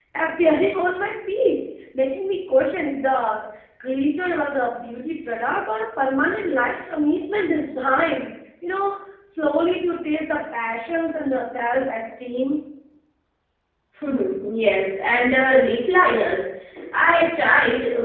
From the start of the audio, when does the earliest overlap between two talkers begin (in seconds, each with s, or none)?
none